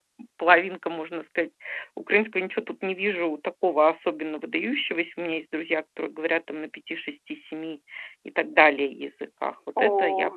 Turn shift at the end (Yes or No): Yes